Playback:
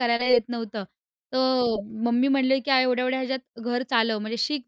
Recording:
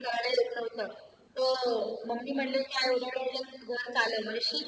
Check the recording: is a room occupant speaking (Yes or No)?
No